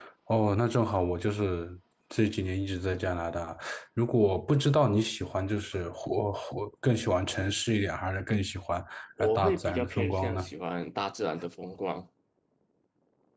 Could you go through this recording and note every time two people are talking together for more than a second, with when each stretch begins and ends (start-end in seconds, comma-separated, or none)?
9.2-10.4